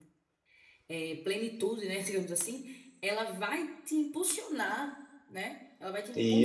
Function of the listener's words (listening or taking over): listening